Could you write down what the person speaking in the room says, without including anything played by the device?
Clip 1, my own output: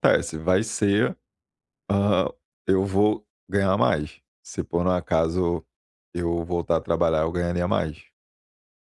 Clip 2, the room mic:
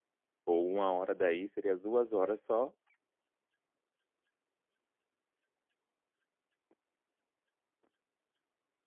ou uma hora daí seria 2 horas só

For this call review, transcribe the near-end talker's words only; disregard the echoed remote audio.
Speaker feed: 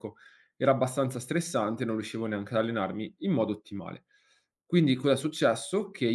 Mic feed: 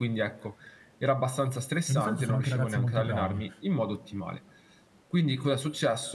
e di solito sono anche ragazzi molto bravi,

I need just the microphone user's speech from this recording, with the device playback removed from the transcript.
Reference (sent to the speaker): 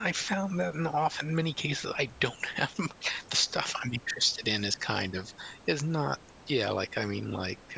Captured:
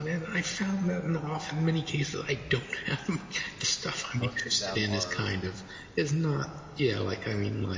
most peo them are

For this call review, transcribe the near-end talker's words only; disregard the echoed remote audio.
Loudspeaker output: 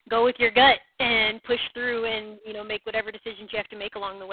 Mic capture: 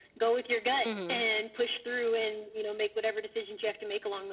Mhm.

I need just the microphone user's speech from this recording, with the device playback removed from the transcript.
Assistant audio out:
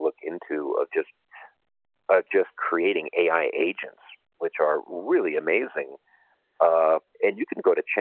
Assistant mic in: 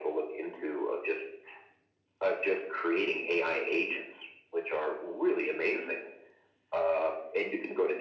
none

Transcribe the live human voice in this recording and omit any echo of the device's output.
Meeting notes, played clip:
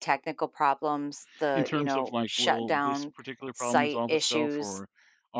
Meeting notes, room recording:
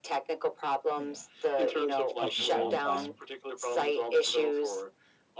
yeah. O of just downtime.

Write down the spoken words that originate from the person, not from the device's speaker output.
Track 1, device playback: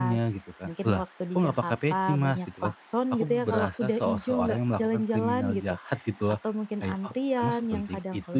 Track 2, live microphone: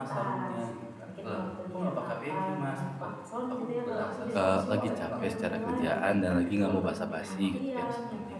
eee, lagi capek secara kerjaan dan lagi nggak mau basa-basi gitu ya.

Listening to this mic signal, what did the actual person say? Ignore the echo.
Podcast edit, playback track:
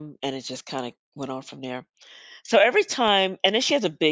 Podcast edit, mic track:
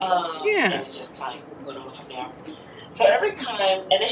Yeah,

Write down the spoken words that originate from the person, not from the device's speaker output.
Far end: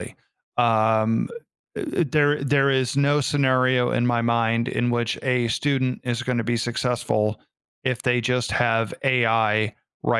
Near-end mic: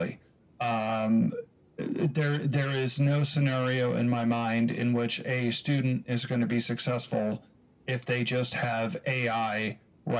none

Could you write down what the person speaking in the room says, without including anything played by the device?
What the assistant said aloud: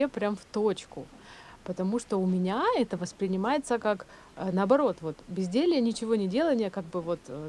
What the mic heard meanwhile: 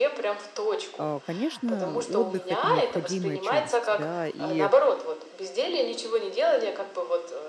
А, Конечно, отдых– это необходимая часть, да, и э,

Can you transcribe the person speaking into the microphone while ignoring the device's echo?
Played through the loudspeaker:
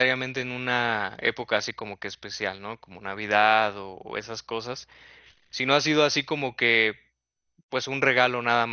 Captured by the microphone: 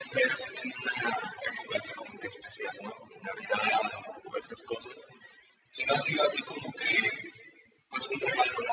none

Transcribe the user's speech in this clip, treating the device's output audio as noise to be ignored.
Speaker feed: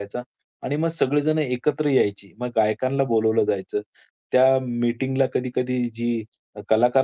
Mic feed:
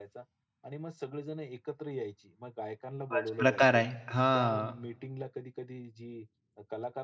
बस प्रकार आहे. हां.

